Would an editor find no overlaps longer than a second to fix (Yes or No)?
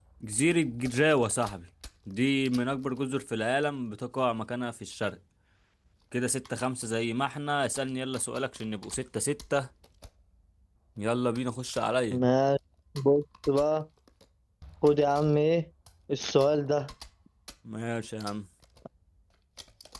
Yes